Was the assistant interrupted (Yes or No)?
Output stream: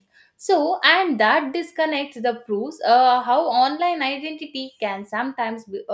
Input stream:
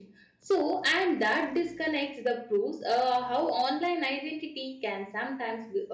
No